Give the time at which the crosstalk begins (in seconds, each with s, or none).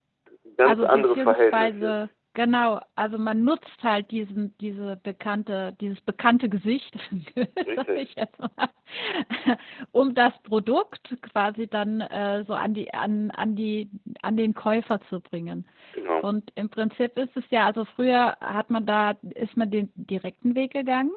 0.6 s